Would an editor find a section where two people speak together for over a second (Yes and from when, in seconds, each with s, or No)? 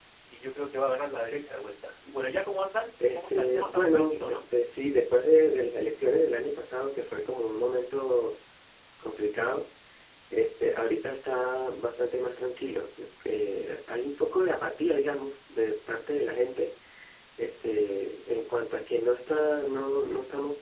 Yes, from 3.2 s